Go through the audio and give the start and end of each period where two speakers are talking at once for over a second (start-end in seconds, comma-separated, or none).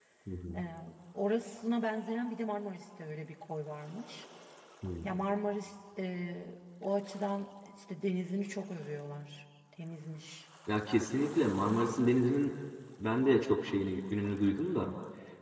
none